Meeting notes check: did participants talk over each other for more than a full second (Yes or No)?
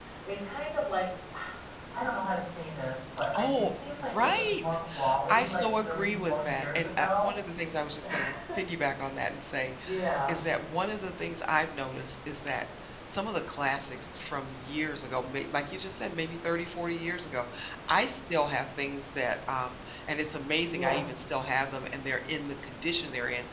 Yes